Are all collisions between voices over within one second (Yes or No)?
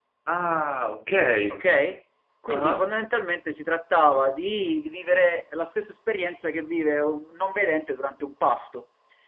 Yes